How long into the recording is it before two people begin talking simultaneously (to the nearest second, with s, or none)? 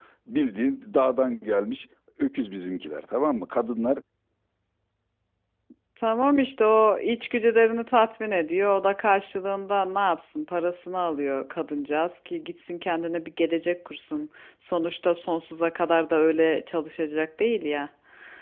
none